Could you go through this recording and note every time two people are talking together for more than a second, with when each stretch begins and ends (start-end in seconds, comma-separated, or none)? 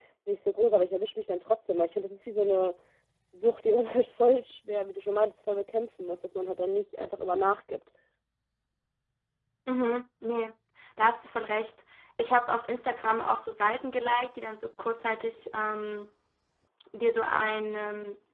none